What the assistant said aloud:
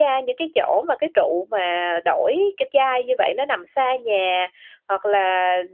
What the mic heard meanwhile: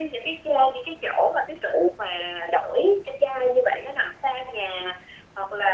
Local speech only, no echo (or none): none